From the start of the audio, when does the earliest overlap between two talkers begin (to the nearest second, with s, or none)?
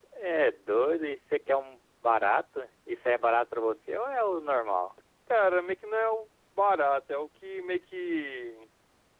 none